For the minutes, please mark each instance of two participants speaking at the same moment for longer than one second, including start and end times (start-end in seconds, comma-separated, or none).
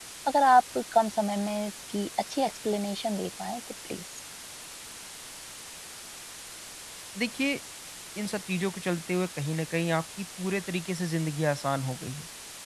none